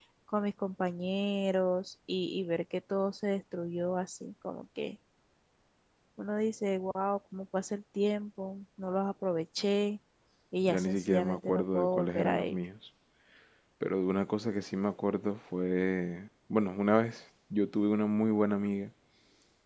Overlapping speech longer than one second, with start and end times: 10.7-12.6

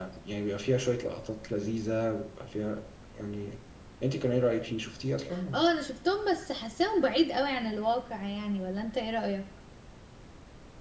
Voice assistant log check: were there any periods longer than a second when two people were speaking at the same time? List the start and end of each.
none

